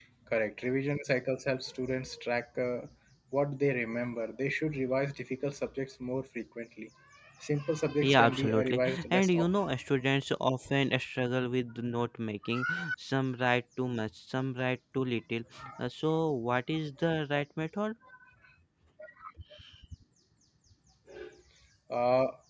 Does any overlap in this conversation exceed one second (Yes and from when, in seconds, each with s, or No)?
Yes, from 8.0 s